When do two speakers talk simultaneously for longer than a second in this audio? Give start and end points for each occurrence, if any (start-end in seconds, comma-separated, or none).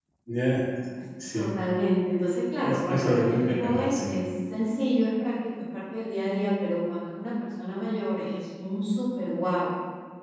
2.6-4.1